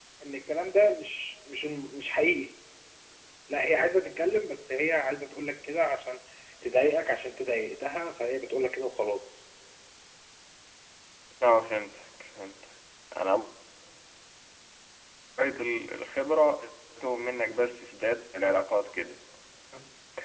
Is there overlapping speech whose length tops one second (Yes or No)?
No